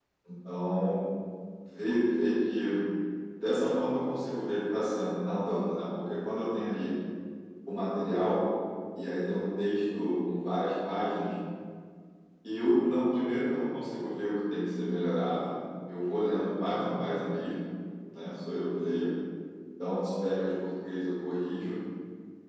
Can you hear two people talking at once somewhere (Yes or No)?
No